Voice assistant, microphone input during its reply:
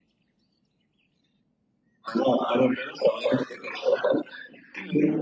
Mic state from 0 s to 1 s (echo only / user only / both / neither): neither